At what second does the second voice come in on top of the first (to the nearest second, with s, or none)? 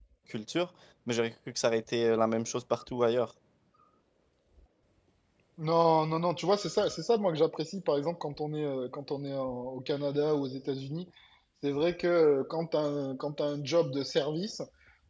none